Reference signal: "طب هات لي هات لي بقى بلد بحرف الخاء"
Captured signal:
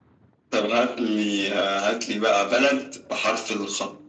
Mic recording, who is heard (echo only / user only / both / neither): echo only